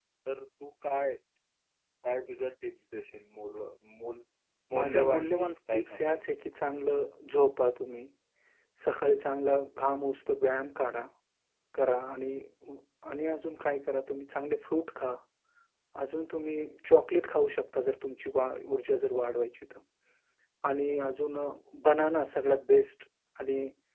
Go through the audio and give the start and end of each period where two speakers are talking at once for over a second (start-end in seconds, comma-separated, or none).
4.7-6.2